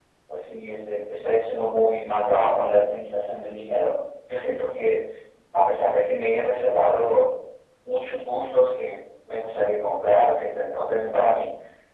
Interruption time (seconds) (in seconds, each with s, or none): none